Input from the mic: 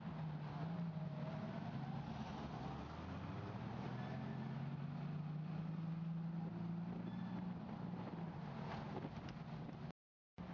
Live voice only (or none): none